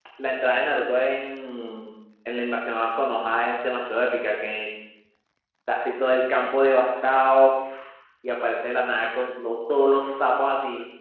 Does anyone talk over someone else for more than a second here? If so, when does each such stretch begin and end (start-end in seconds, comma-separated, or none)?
none